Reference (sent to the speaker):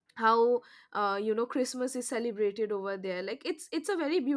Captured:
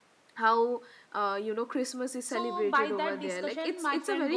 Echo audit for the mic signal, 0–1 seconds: echo only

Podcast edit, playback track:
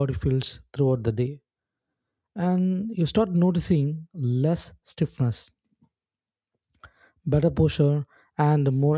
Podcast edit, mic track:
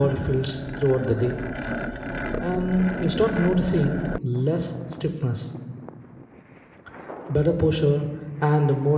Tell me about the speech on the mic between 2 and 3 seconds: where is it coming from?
echo only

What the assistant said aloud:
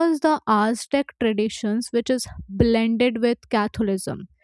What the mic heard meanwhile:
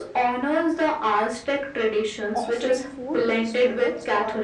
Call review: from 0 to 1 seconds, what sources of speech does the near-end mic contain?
echo only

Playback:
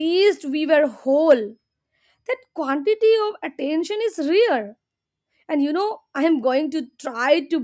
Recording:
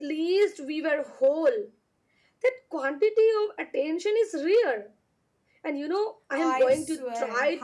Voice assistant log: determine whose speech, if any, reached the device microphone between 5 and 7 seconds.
both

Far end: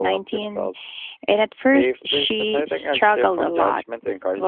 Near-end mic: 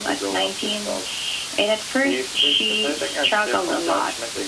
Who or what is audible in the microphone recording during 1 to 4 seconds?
echo only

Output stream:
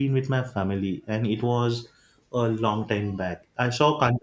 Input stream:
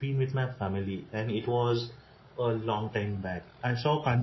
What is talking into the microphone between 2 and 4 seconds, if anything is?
echo only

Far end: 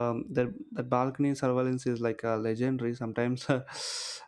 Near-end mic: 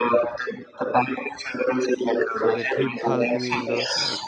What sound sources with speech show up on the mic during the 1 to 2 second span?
echo only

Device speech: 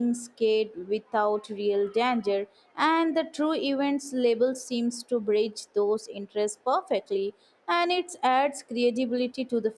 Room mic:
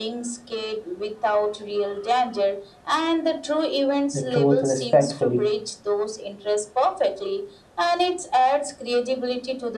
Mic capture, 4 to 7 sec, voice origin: both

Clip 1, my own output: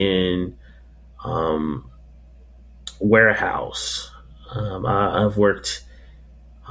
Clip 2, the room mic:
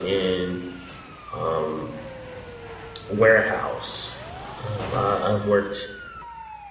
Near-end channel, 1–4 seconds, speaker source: echo only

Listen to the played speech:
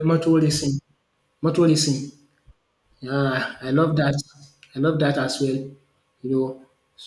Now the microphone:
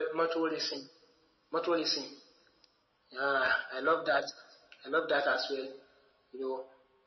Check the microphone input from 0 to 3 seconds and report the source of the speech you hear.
echo only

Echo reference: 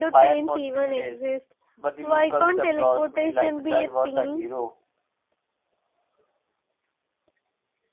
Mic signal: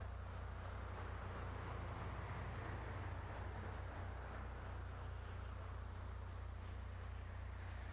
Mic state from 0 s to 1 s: neither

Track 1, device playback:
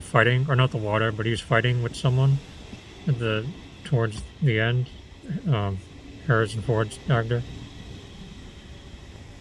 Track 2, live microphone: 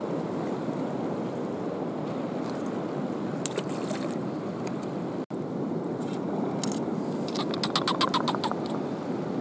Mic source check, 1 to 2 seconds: neither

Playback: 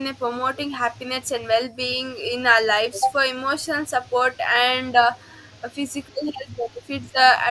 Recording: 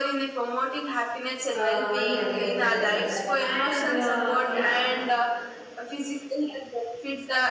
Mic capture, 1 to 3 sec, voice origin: both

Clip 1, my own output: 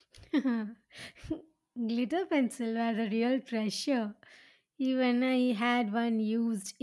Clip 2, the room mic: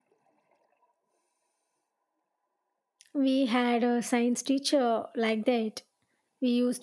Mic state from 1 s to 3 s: neither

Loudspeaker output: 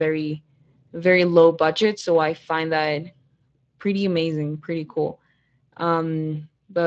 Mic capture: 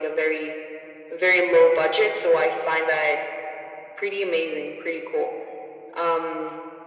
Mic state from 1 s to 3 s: echo only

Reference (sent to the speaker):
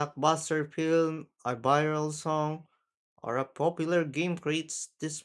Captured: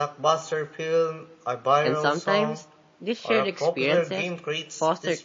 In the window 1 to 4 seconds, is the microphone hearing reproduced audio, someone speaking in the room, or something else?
both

